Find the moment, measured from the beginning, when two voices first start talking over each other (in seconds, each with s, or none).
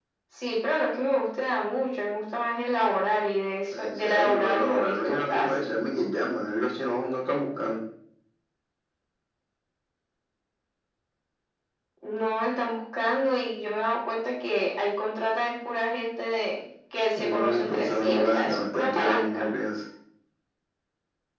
3.7 s